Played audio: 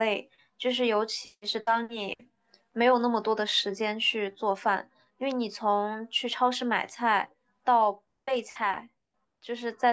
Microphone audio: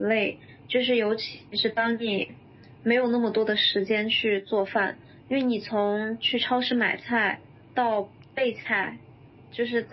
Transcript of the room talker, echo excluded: none

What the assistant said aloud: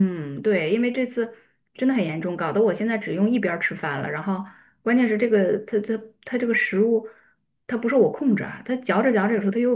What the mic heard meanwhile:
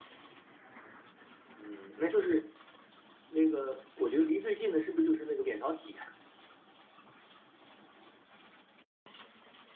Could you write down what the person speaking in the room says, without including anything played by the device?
嗯，那就是那个，我觉得离最近的是不是就是那个扁桃体，

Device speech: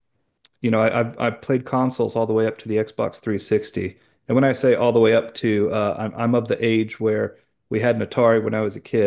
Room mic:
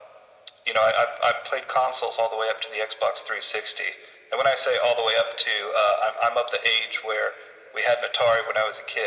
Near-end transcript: none

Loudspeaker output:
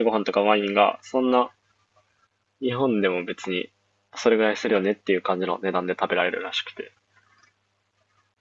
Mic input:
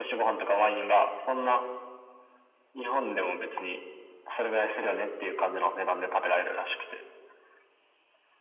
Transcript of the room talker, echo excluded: none

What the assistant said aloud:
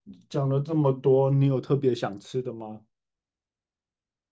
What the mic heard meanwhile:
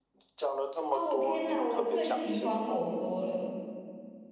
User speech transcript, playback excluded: 哦，天哪，我最喜欢火锅了。

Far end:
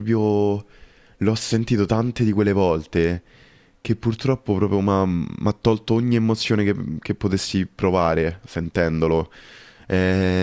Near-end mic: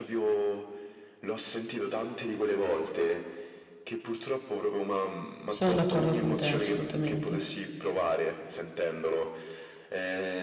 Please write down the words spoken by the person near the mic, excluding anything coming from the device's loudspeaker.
Sono d'accordo con te, assolutamente.

